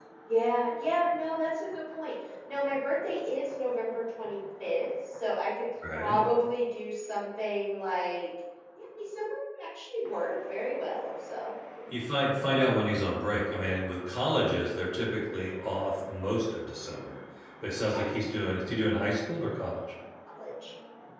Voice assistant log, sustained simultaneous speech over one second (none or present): none